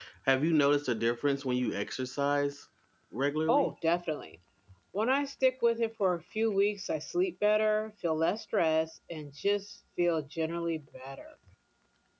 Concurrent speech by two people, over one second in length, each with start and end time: none

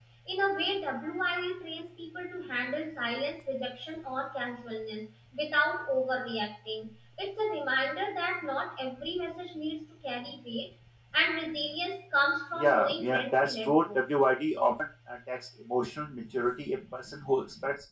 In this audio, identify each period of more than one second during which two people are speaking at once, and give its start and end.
12.6-14.0

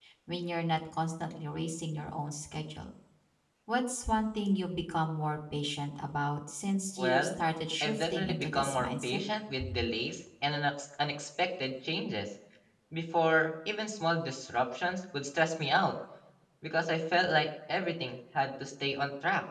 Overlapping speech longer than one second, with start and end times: 7.8-9.2

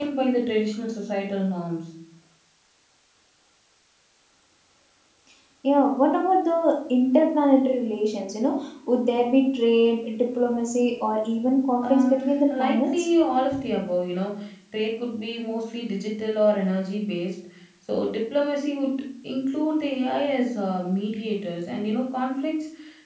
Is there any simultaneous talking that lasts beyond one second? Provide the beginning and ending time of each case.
11.8-13.1

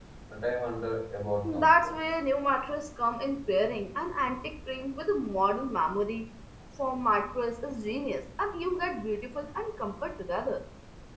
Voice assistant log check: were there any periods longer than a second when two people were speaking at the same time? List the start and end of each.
none

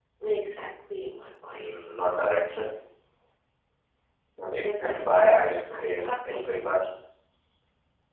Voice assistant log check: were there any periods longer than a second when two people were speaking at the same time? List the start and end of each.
4.6-6.4

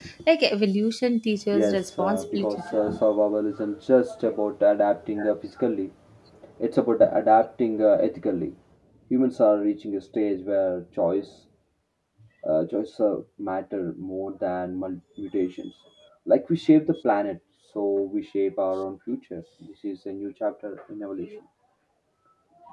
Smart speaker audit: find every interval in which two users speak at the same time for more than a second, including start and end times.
1.5-2.8

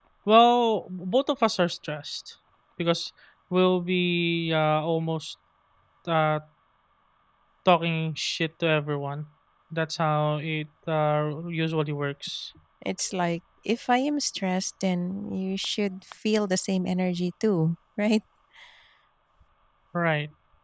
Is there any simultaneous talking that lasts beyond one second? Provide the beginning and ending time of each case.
none

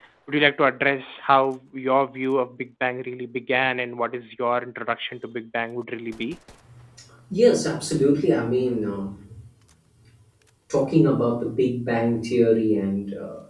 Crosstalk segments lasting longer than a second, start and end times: none

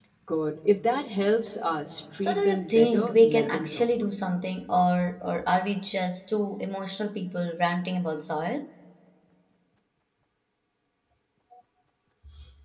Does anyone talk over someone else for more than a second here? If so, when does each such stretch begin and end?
2.2-3.9

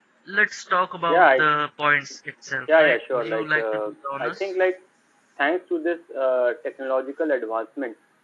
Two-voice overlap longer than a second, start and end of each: 2.7-4.4

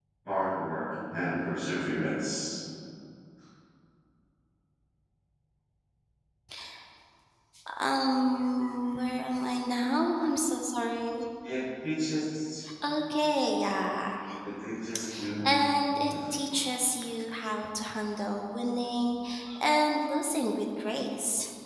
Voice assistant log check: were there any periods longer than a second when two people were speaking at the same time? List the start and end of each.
none

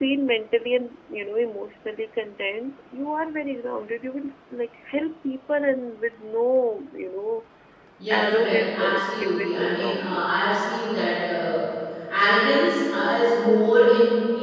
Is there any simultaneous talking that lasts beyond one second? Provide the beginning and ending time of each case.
8.1-10.3

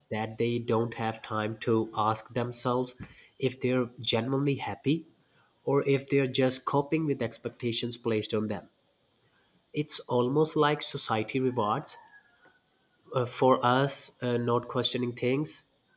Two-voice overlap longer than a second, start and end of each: none

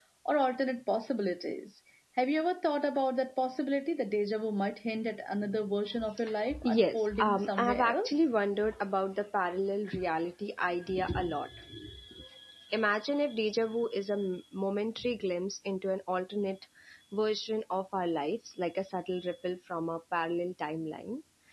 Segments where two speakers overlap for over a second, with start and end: 6.6-8.2

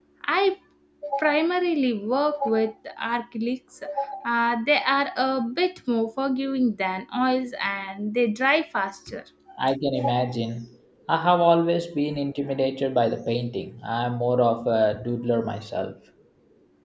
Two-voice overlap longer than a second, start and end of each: none

